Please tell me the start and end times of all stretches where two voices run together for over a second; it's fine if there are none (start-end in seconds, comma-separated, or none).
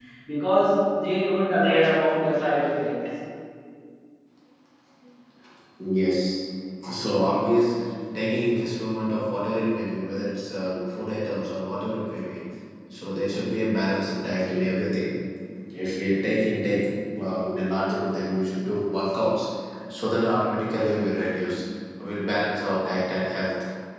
none